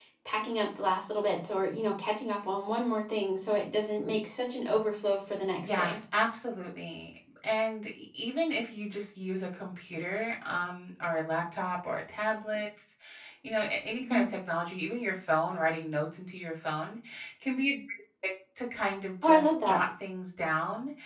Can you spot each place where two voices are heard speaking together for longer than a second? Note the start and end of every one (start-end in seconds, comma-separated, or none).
none